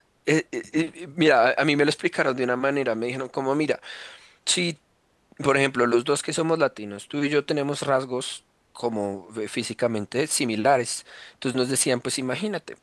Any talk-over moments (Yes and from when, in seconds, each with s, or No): No